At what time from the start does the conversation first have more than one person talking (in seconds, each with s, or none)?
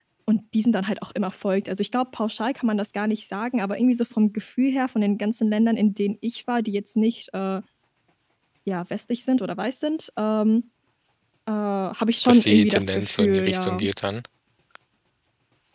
12.2 s